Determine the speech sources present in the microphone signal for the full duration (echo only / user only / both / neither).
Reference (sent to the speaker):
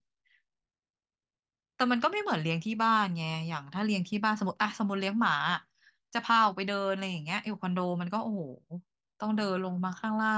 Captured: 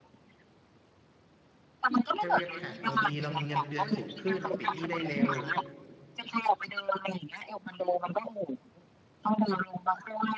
both